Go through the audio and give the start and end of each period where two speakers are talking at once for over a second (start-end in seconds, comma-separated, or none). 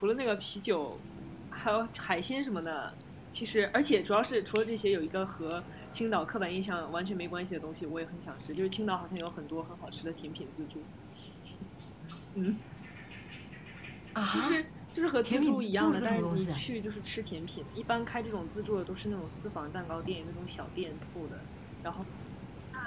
15.2-16.5